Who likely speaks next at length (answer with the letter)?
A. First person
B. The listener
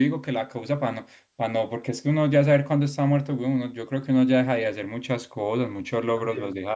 B